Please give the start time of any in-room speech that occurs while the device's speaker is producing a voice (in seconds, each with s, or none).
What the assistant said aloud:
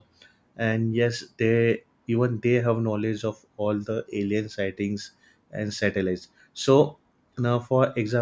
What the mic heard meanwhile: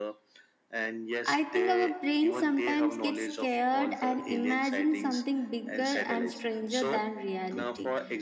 1.2 s